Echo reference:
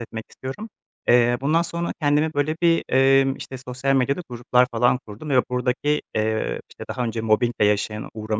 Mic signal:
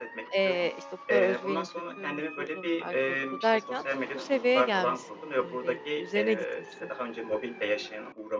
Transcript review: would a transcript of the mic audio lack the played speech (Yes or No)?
No